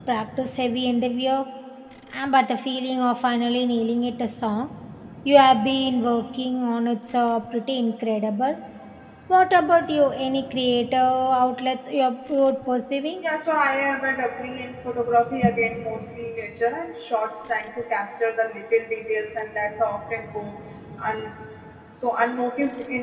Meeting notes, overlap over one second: none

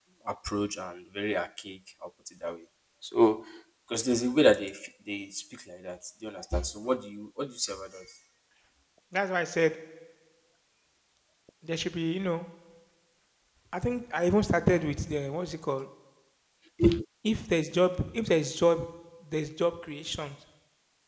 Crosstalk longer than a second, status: none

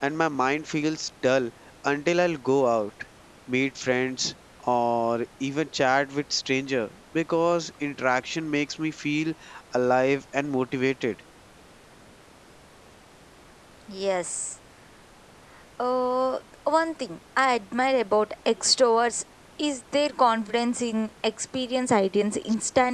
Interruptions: none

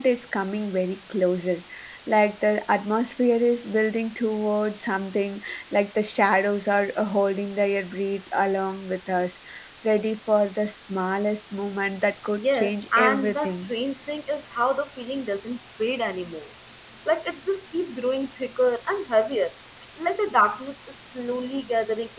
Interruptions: present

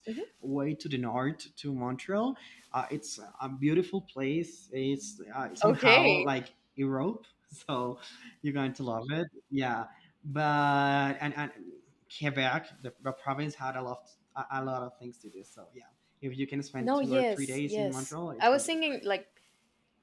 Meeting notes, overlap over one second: present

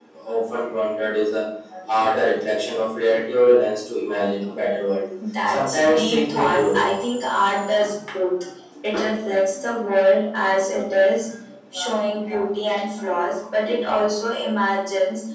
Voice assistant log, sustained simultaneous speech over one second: present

